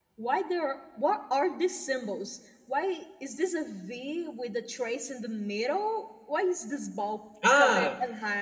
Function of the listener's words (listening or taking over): taking over